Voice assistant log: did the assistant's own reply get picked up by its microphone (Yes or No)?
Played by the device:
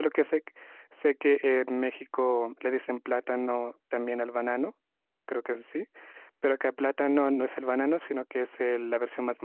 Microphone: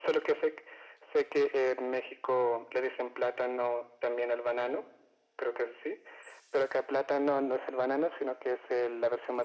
Yes